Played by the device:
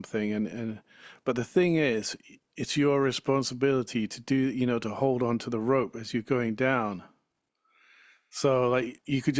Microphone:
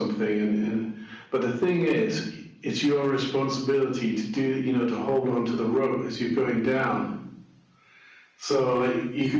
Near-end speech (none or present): none